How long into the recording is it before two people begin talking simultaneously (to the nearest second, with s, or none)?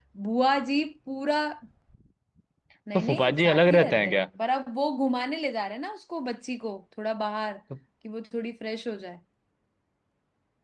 3 s